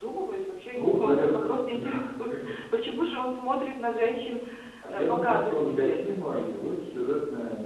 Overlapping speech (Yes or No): Yes